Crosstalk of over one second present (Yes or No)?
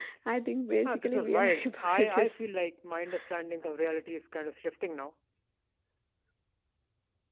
Yes